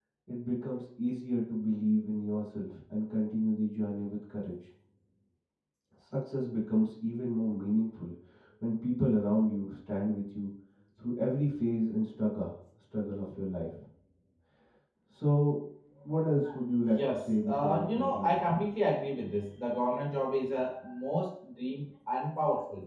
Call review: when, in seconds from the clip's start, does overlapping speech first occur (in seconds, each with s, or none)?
16.9 s